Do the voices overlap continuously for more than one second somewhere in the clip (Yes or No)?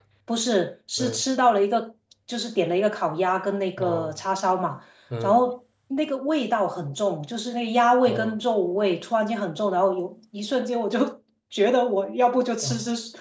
No